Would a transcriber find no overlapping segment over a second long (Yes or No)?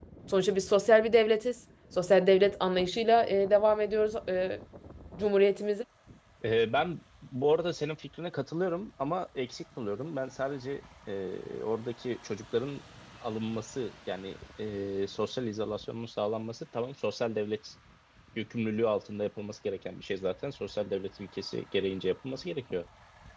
Yes